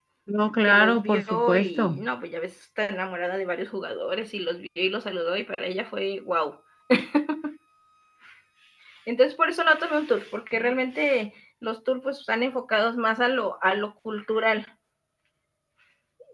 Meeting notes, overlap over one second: present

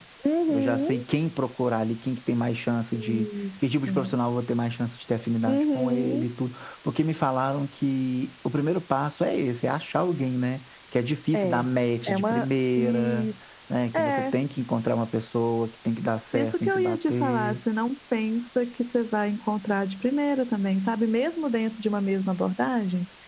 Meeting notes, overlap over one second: present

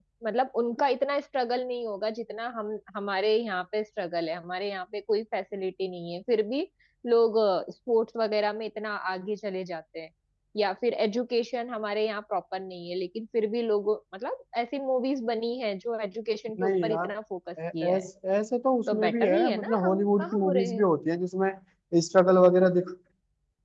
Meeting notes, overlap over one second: present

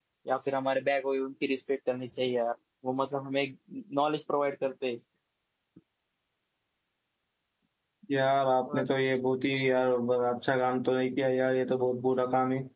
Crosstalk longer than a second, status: none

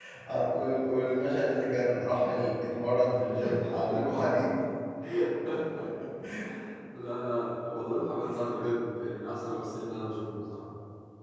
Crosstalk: none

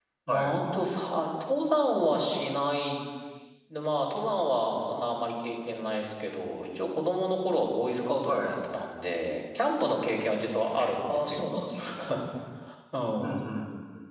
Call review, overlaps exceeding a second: none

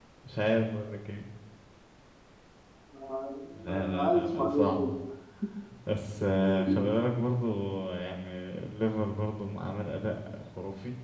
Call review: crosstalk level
present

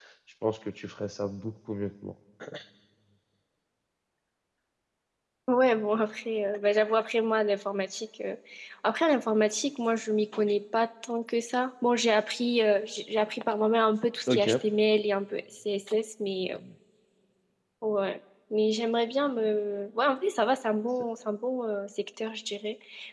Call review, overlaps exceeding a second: none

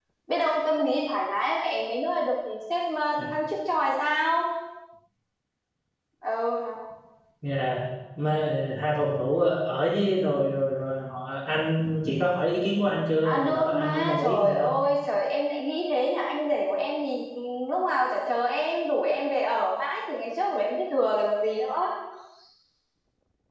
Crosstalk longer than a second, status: present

